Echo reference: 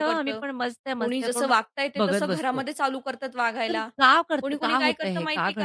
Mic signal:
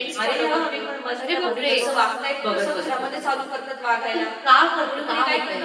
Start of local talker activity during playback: 1 s

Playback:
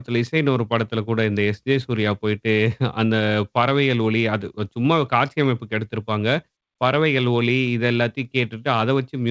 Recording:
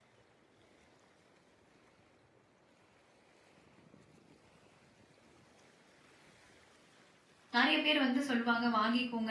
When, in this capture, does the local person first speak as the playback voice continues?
8 s

